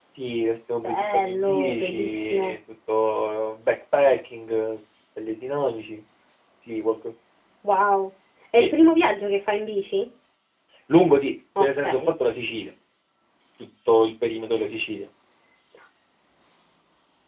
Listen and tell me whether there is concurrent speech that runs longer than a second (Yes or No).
Yes